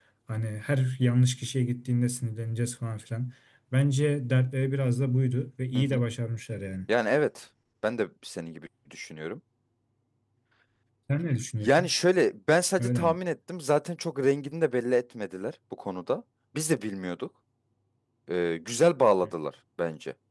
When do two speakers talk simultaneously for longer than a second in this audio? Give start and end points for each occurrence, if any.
none

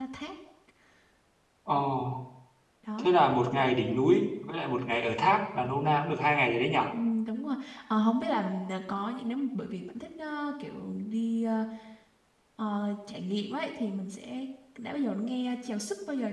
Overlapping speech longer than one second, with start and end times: none

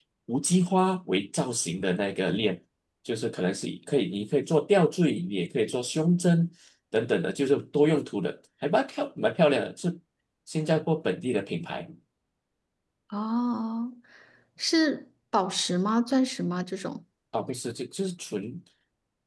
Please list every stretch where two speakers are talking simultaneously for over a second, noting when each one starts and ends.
none

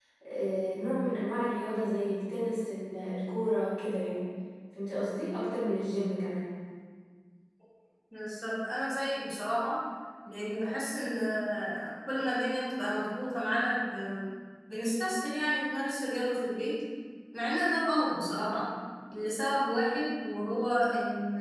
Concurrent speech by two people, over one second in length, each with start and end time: none

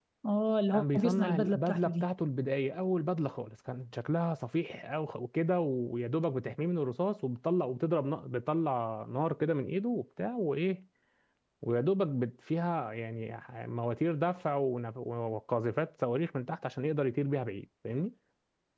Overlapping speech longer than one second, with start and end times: 0.7-2.0

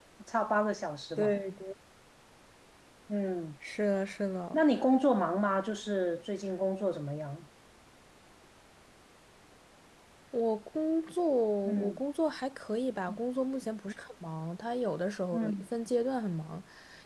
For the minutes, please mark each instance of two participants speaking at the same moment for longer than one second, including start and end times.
none

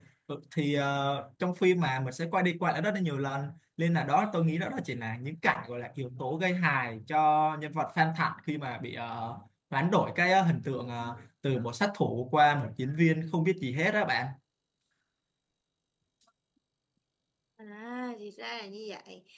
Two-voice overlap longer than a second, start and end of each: none

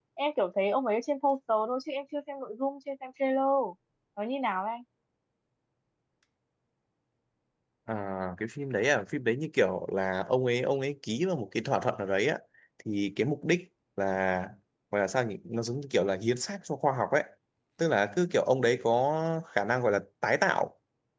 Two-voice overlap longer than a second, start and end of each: none

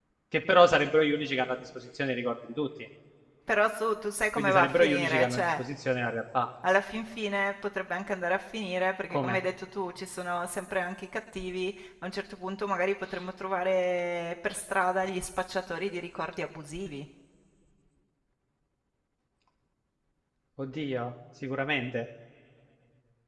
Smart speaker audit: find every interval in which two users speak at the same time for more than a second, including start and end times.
4.4-5.6

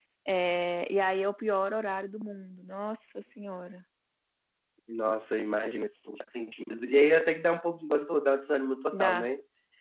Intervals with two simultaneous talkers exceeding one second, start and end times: none

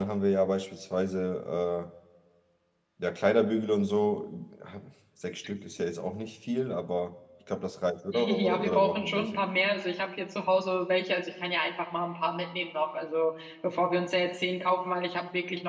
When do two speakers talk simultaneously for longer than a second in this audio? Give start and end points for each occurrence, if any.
8.1-9.4

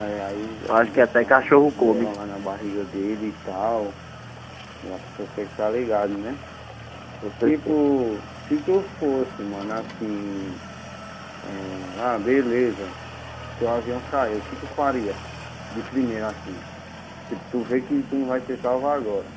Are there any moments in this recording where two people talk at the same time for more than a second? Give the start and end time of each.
0.7-2.1

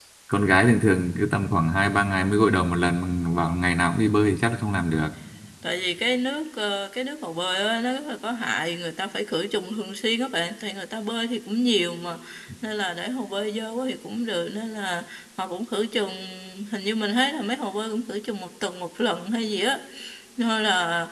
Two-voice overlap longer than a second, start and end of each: none

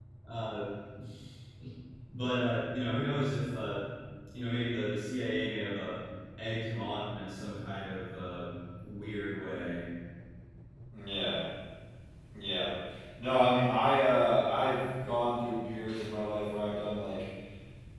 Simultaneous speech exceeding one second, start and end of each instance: none

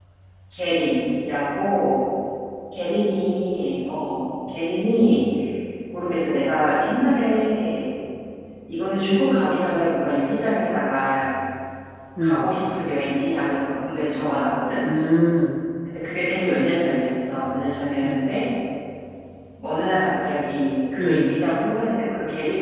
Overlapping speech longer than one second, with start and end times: none

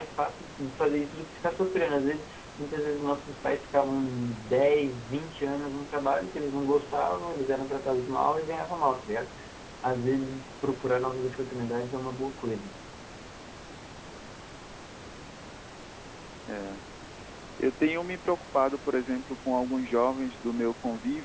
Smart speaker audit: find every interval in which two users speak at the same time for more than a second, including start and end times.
none

